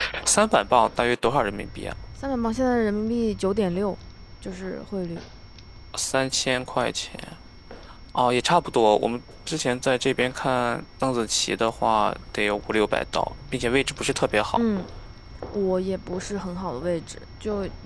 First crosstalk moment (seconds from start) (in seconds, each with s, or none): none